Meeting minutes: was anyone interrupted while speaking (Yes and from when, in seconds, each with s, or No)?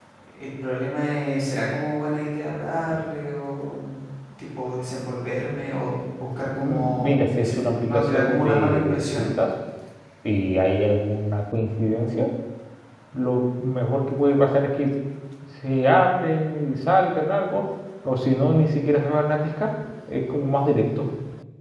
Yes, from 6.6 s